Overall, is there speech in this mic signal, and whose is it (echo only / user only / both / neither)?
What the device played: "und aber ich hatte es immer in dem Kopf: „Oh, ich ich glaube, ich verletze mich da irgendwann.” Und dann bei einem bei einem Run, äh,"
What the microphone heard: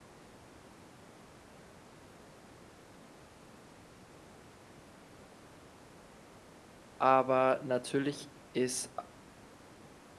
user only